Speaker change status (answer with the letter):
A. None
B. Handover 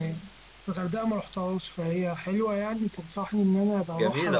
B